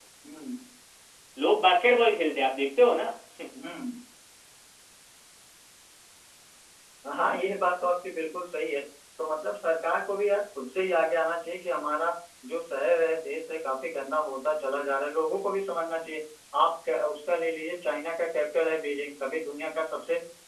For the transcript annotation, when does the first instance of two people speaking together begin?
none

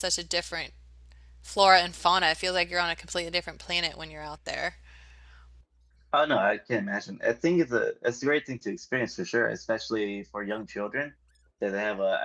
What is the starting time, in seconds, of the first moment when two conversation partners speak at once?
none

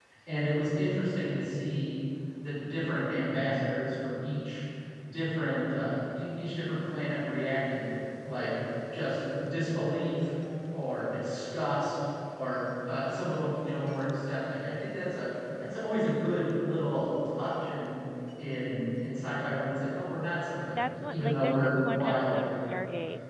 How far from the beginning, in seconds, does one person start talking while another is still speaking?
20.8 s

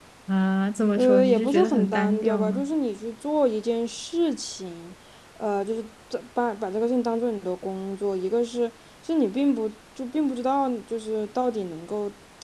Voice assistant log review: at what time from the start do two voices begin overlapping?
0.9 s

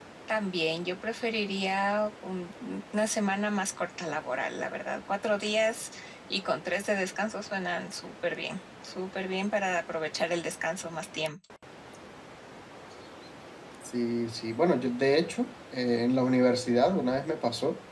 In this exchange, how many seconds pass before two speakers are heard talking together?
none

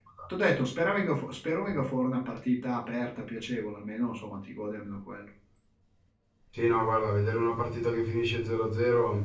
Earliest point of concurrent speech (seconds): none

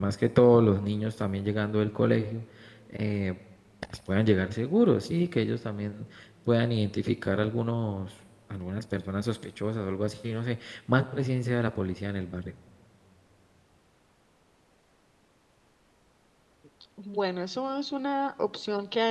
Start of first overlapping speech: none

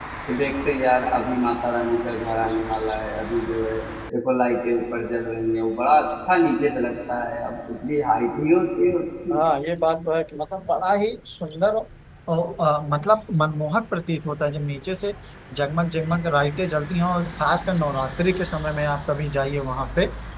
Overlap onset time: none

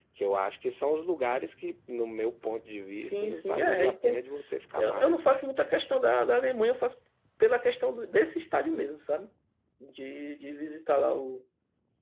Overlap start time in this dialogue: 2.9 s

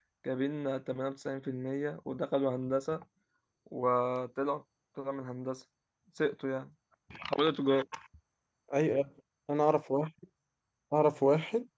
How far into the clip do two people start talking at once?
none

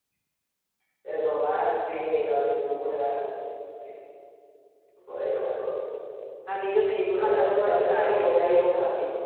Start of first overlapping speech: 7.2 s

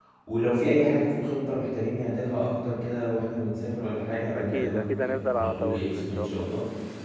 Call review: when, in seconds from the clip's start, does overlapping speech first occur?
4.3 s

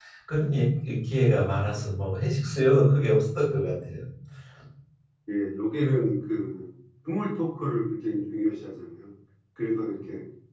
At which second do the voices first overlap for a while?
none

